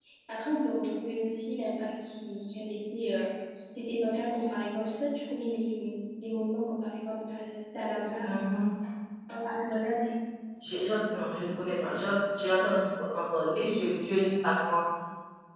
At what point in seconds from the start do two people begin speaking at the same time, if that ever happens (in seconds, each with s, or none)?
none